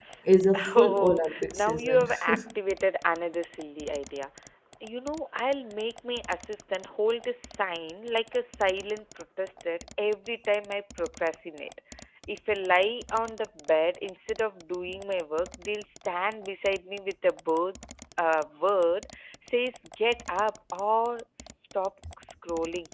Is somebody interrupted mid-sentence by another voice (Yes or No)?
Yes